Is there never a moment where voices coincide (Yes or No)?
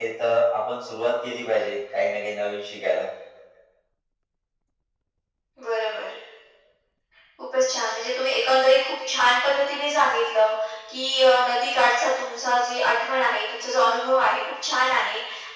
Yes